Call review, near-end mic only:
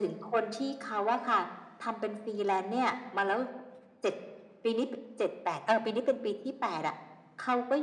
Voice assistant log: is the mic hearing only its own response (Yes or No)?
Yes